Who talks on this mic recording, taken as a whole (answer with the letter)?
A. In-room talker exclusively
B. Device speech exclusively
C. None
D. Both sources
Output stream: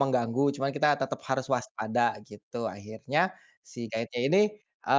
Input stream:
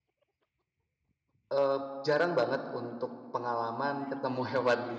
A